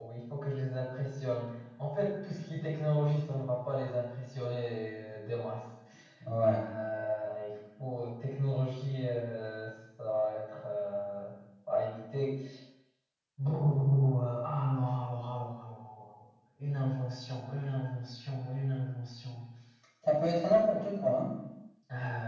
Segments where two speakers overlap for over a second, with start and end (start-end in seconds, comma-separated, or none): none